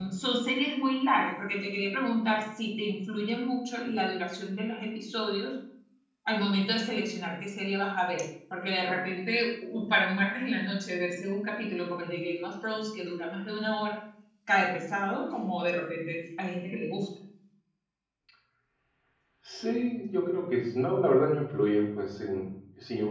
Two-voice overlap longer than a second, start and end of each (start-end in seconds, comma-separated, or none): none